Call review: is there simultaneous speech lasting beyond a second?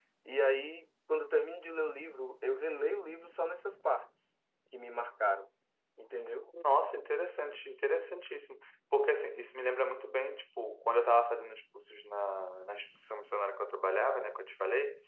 No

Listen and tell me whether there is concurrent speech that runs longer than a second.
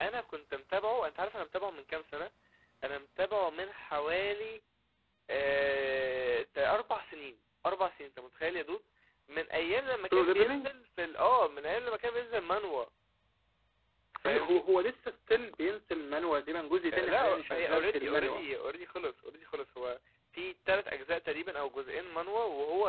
Yes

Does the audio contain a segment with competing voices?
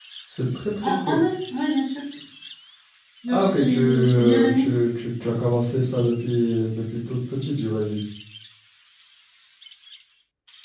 Yes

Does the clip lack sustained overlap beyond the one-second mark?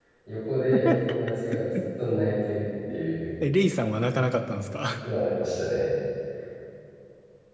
Yes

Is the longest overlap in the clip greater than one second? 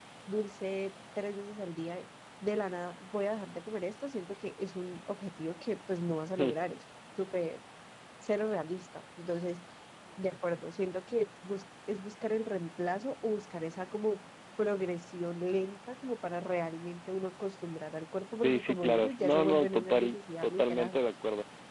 Yes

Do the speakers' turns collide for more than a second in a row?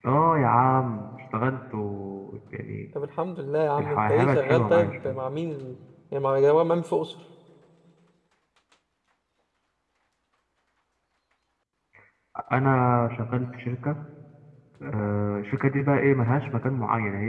Yes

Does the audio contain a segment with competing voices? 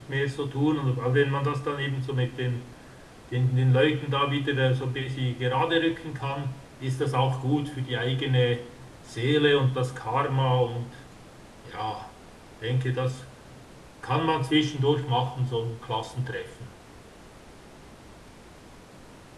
No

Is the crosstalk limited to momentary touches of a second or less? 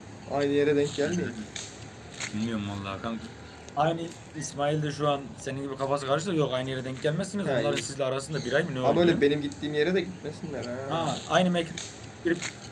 Yes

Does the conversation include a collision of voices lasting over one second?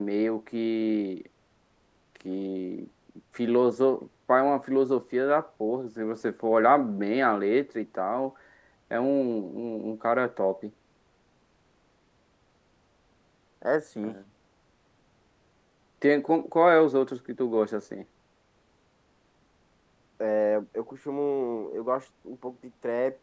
No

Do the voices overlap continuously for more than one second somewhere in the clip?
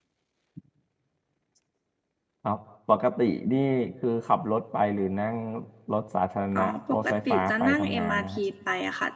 Yes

